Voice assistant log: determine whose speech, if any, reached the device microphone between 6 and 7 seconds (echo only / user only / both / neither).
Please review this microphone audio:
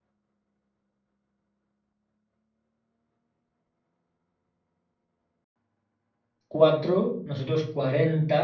user only